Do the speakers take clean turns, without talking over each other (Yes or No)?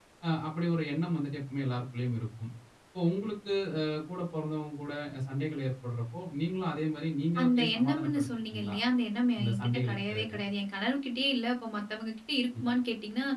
No